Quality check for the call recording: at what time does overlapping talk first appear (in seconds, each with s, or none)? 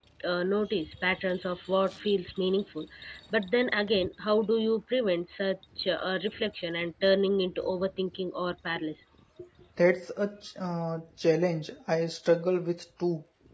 none